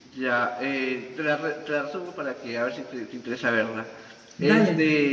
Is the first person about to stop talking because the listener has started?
No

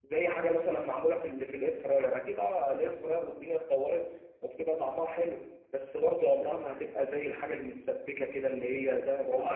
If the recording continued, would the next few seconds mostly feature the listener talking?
Yes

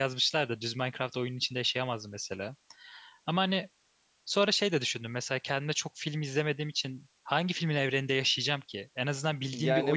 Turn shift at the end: Yes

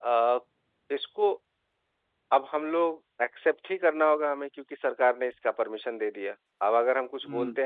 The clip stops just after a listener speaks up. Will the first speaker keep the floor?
Yes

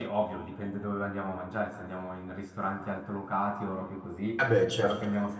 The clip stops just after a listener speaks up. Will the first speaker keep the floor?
Yes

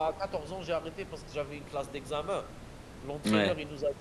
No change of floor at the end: Yes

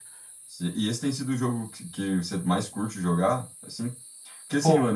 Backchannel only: Yes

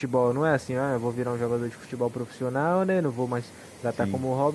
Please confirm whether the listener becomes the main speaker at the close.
No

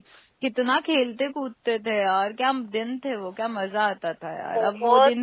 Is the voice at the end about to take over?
Yes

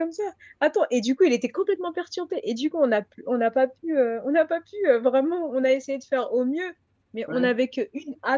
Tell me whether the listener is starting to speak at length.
No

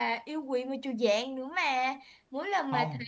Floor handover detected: No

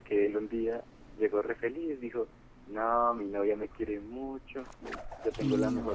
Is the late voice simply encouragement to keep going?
Yes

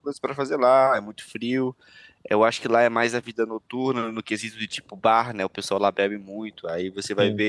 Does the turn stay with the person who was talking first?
Yes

